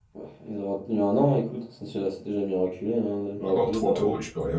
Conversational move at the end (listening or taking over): taking over